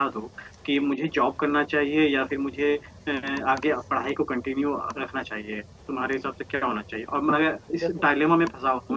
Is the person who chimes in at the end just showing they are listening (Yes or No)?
Yes